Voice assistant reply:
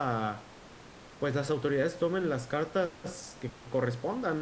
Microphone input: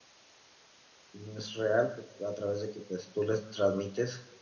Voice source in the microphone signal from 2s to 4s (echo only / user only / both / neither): user only